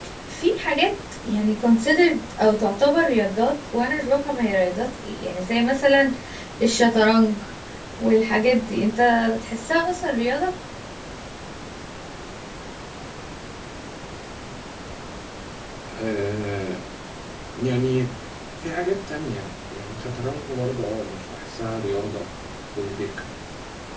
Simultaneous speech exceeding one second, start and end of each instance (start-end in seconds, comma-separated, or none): none